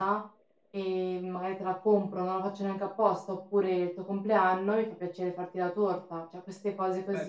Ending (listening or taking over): taking over